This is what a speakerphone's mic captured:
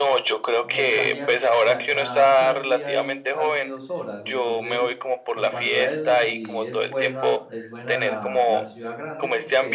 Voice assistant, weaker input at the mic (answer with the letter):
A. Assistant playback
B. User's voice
B